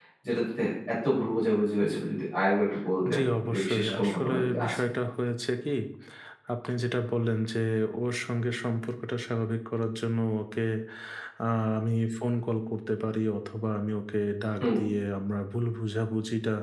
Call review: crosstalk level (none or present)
present